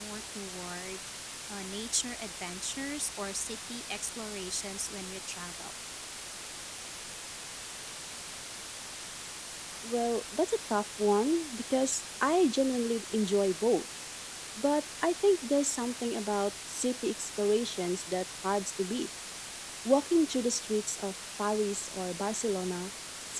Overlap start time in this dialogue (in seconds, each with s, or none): none